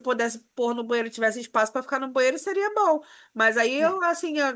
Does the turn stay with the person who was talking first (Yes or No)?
Yes